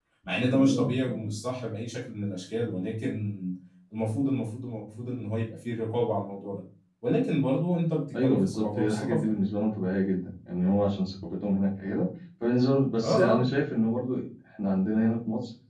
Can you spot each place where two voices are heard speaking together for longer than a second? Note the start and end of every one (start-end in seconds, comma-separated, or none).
8.1-9.4